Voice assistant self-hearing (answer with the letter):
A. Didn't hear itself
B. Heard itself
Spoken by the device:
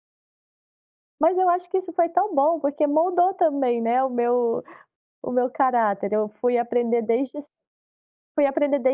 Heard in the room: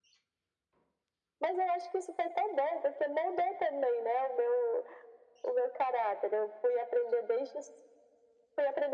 B